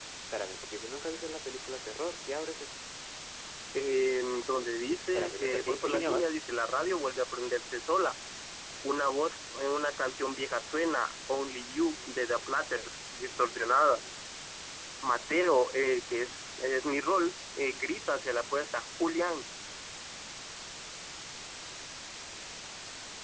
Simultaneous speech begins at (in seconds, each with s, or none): 5.1 s